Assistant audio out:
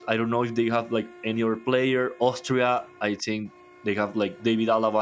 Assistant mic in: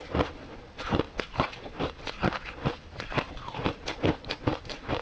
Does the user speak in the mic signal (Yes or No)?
No